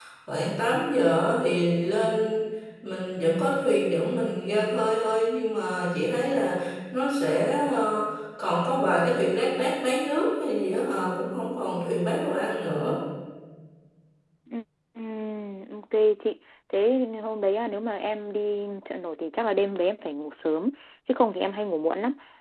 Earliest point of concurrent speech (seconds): none

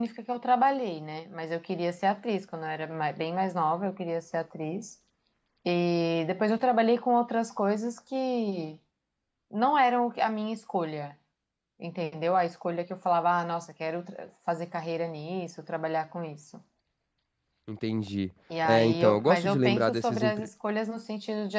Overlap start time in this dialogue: 18.5 s

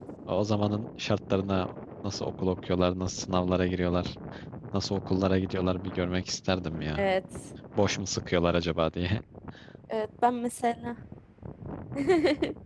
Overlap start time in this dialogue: none

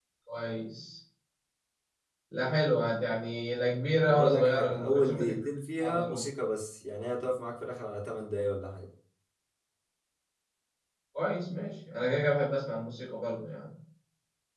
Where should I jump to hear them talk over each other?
4.1 s

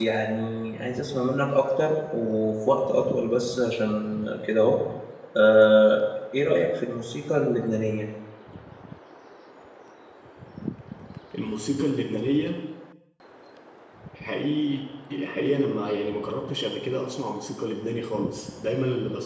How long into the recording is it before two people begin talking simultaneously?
none

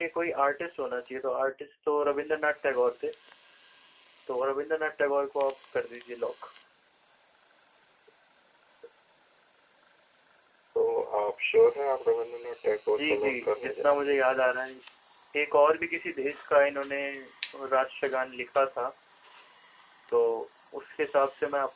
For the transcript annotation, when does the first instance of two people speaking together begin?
12.9 s

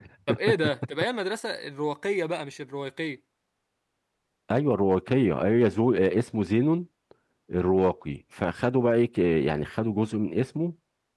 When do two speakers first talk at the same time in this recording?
none

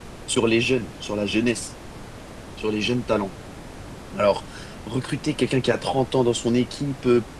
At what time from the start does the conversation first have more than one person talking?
none

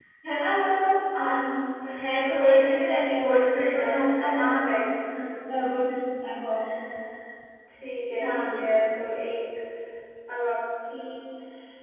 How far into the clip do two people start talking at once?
2.2 s

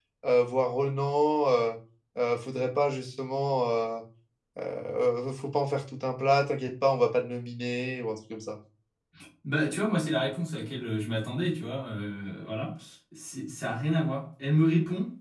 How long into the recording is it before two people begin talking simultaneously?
none

